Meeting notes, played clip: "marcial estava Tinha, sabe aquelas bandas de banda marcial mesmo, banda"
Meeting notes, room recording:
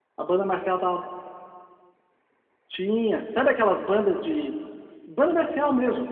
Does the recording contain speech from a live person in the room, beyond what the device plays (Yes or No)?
No